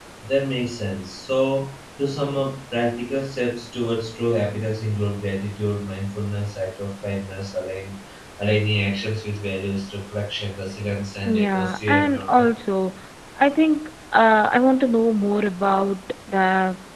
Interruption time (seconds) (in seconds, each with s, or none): 11.2 s